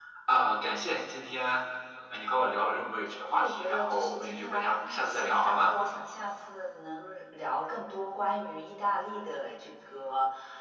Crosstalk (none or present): present